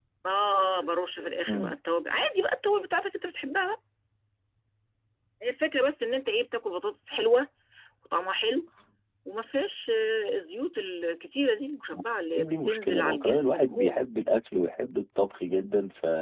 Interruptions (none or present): present